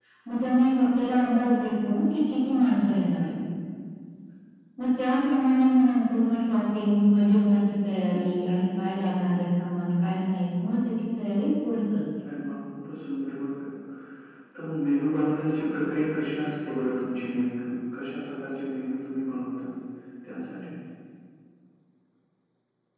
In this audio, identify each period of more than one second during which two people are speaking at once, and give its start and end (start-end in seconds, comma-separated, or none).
none